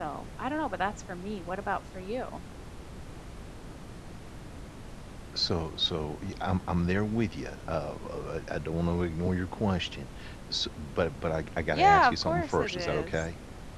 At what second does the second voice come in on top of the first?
12 s

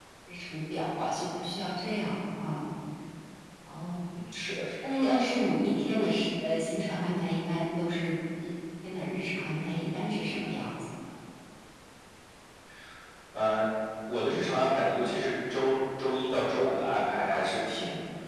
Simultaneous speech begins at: none

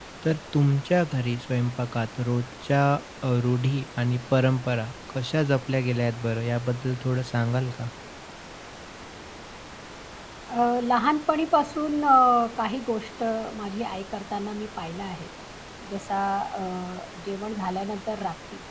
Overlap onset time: none

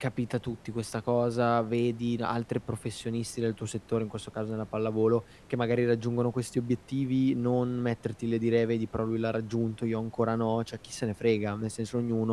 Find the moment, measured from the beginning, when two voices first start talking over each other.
none

